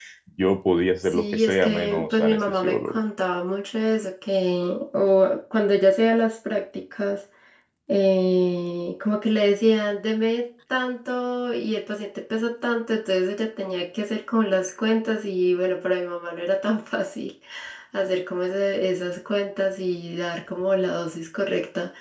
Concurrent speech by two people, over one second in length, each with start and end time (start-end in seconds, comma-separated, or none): 1.0-3.0